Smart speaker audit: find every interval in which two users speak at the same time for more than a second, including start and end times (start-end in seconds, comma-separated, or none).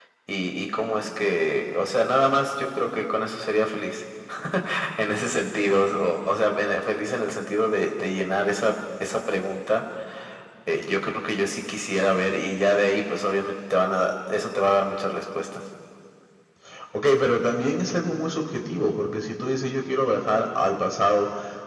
none